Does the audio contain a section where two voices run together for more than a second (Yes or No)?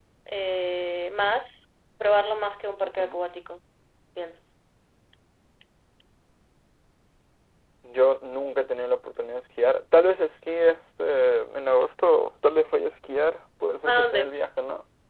No